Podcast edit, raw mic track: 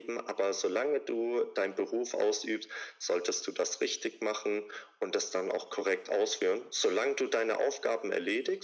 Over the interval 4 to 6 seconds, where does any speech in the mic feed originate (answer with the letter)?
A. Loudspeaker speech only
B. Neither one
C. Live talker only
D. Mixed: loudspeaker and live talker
A